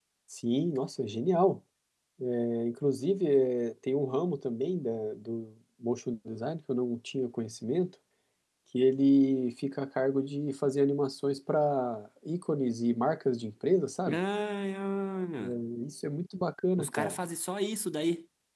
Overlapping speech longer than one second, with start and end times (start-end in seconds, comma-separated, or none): none